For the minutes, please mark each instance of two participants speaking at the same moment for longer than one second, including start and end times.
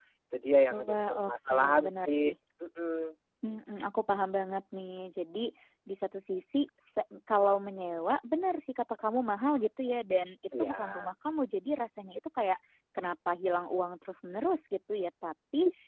0.8-2.3

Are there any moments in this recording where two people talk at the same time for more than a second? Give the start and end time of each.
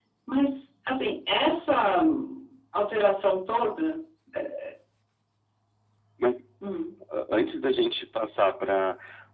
none

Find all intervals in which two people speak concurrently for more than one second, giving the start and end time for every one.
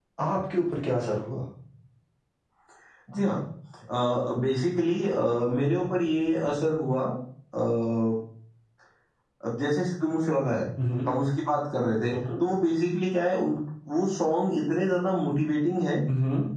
none

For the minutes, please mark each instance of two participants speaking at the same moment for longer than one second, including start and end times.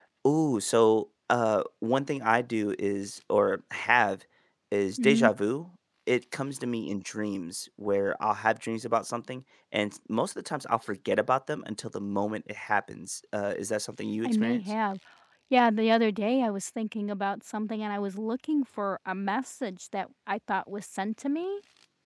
none

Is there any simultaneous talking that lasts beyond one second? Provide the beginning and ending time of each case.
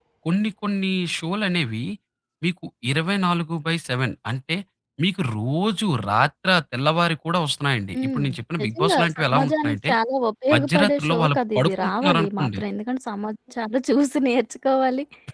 8.6-9.9, 10.5-12.6

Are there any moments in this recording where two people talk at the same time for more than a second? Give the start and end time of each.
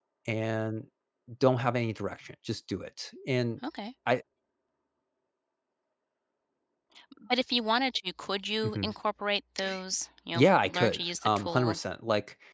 10.3-11.8

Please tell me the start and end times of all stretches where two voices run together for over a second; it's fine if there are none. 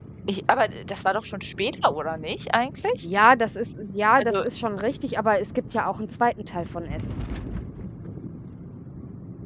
none

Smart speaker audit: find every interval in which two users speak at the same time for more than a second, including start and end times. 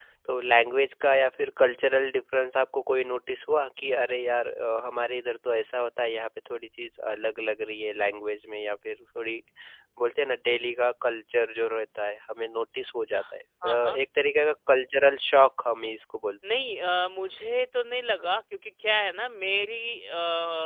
none

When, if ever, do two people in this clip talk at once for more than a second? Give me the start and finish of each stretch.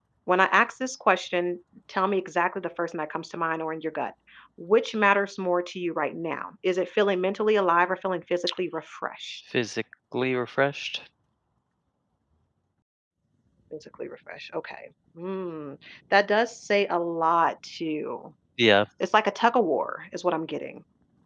none

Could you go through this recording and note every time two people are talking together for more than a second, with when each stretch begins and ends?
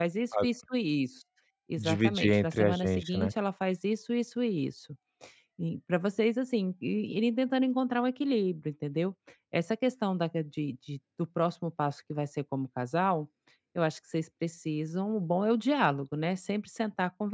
1.8-3.3

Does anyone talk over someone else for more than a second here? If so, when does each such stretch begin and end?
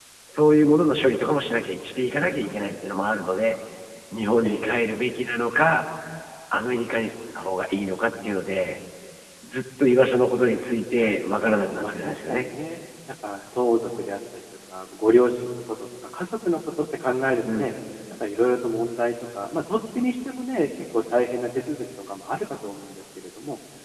10.9-12.5

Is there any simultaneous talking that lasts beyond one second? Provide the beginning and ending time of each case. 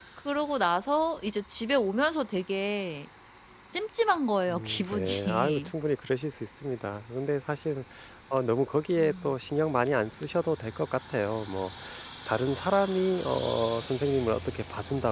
4.5-5.7

